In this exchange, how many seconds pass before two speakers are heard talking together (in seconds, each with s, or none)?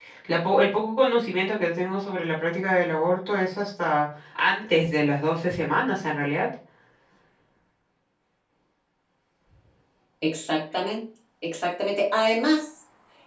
none